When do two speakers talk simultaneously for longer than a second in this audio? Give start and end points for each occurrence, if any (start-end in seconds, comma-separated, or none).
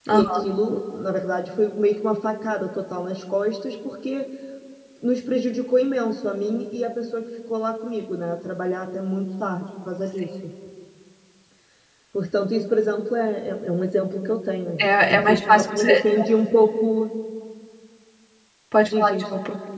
14.8-16.2